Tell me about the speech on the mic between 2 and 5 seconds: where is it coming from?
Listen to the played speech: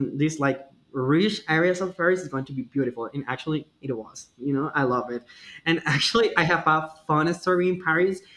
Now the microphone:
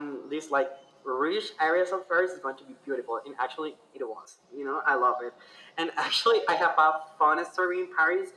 echo only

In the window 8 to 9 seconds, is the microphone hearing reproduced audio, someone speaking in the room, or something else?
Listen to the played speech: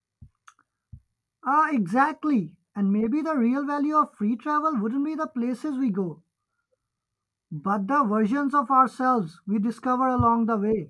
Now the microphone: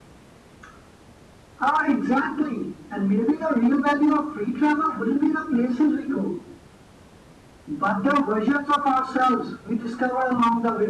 echo only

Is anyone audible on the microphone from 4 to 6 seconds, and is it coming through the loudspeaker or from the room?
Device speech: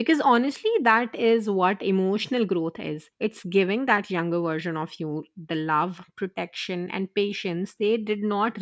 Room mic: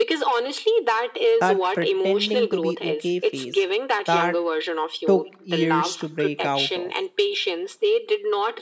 both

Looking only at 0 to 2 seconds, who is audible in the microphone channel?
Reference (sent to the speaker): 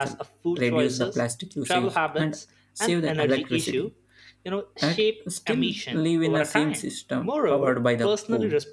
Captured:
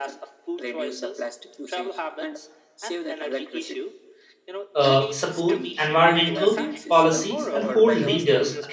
echo only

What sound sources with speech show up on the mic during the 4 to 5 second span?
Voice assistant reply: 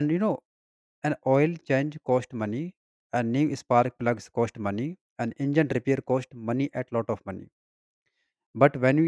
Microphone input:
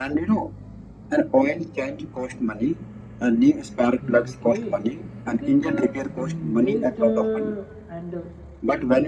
both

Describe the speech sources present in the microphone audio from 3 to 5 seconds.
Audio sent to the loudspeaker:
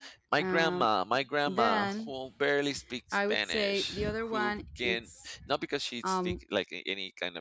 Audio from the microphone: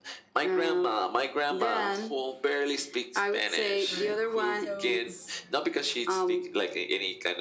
both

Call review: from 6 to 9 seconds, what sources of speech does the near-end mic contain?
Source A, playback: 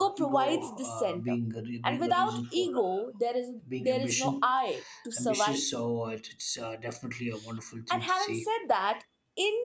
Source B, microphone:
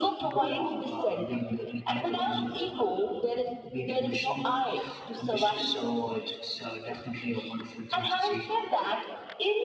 echo only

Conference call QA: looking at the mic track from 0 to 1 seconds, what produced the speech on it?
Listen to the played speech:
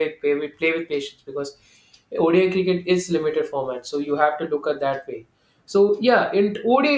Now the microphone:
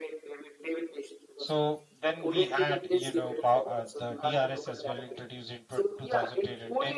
echo only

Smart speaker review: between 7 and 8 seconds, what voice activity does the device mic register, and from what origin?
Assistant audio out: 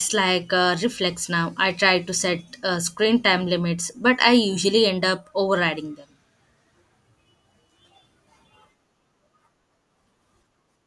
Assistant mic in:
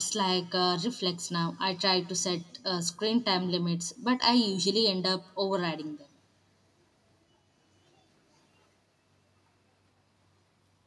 neither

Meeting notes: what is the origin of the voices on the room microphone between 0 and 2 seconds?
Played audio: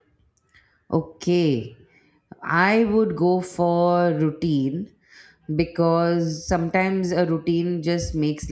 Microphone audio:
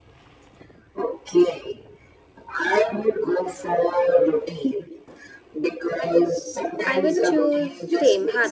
echo only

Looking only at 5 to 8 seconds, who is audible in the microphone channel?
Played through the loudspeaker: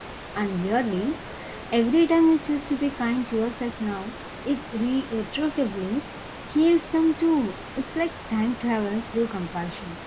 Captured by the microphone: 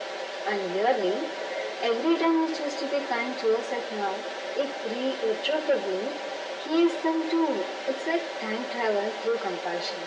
echo only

